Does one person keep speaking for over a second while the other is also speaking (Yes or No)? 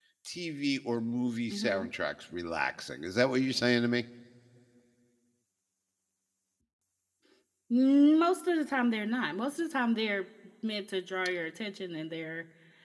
No